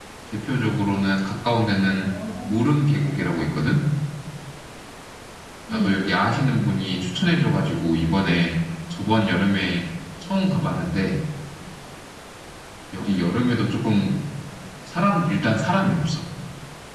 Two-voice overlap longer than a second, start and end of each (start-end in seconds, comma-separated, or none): none